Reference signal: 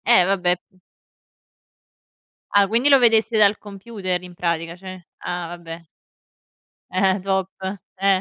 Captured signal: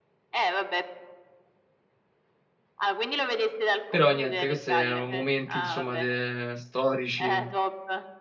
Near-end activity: present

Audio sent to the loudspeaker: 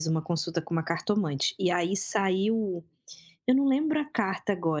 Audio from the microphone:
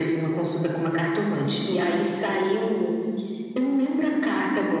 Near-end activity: none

